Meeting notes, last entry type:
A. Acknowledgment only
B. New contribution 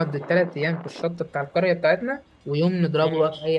A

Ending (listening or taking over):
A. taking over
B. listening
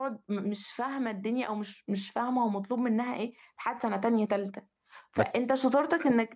B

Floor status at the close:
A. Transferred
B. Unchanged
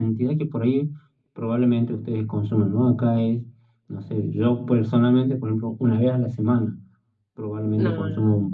B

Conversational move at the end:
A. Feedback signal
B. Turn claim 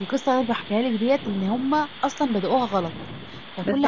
B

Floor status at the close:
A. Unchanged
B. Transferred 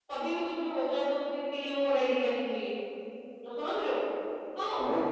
A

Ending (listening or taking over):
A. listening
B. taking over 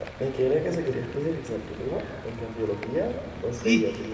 B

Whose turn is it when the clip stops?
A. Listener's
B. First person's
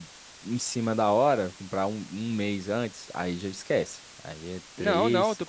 A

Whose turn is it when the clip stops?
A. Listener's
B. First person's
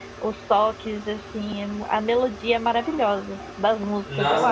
A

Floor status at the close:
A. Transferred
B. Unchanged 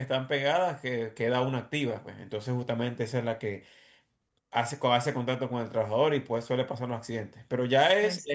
B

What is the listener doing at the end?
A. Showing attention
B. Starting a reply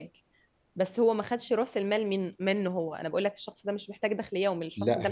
B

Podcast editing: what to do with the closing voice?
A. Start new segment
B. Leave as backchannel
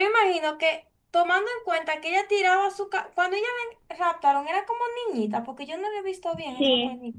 A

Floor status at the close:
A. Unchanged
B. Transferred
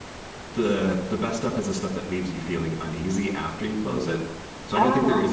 A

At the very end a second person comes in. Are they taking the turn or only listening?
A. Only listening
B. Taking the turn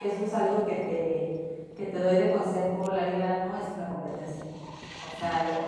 A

